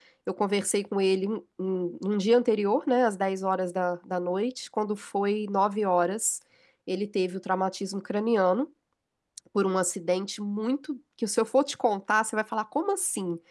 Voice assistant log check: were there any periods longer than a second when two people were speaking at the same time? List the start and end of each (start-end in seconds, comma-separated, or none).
none